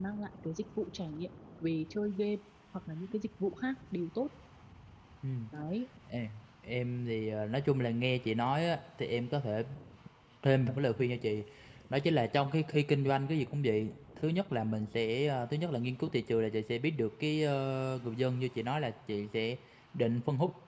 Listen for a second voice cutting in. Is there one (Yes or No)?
No